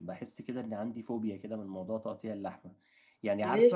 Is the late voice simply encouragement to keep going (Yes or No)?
Yes